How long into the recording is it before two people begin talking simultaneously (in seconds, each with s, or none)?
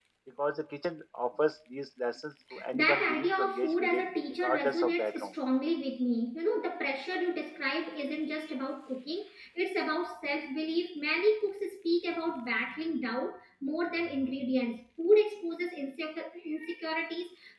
2.5 s